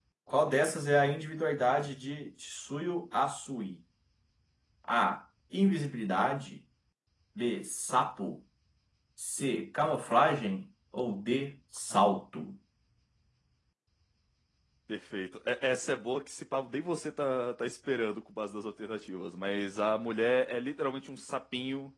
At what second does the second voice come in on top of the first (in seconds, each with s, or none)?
none